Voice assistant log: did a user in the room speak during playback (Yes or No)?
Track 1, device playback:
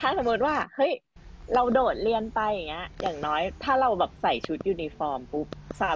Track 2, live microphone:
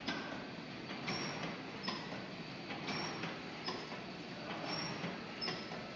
No